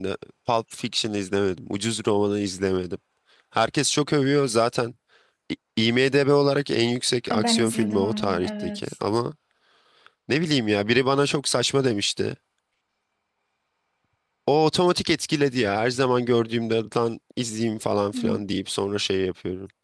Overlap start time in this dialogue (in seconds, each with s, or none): 7.3 s